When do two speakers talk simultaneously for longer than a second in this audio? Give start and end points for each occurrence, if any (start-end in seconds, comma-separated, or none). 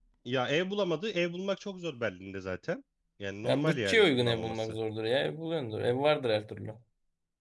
3.4-4.8